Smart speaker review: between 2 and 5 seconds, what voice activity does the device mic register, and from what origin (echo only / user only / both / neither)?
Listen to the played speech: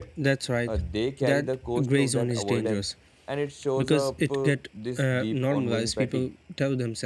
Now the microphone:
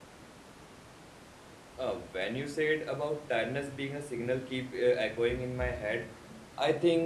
user only